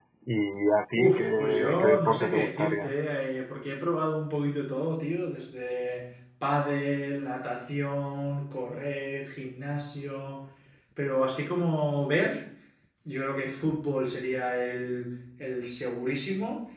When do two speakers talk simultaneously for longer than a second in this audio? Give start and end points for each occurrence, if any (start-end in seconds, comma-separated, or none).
0.9-2.9